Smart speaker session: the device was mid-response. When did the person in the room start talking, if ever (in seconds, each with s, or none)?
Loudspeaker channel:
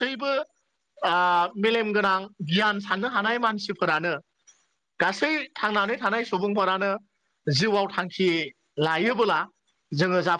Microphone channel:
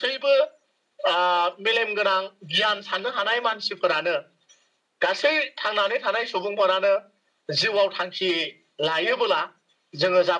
none